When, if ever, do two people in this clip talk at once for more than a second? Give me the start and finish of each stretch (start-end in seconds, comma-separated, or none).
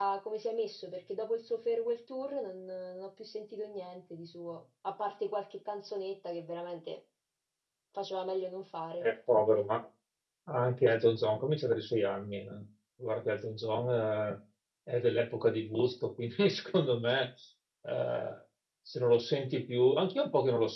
none